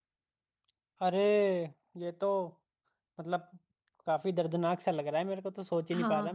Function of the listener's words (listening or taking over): taking over